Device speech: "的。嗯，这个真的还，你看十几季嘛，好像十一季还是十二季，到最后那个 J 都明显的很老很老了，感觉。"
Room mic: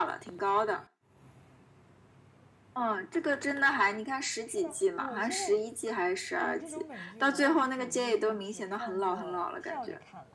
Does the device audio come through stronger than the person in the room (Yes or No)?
Yes